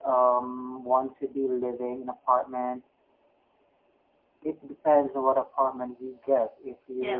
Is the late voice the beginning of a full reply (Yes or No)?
No